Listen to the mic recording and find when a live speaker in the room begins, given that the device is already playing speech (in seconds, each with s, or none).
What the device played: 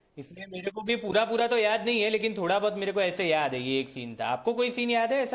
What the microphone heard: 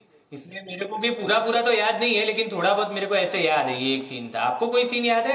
none